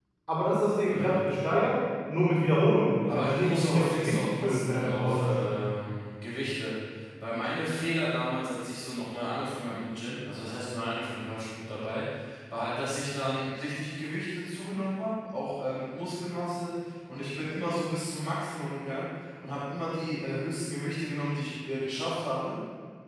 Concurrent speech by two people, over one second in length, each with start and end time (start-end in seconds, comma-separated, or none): 3.1-5.5